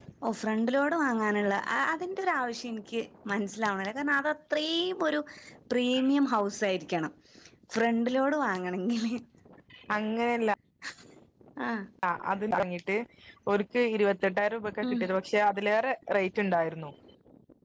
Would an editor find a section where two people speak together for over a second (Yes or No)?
No